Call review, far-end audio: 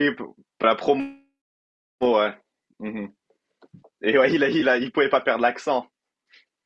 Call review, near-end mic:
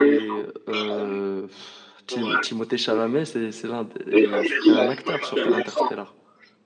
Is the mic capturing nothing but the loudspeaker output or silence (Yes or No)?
No